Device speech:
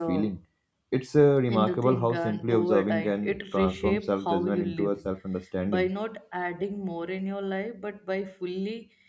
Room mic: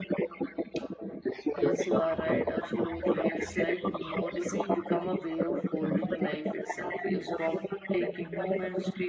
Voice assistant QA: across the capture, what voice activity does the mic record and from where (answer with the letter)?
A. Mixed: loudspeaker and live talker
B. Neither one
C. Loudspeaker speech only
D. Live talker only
A